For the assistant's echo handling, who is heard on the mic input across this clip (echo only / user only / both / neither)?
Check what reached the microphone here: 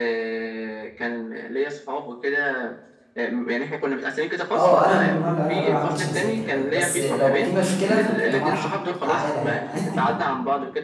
both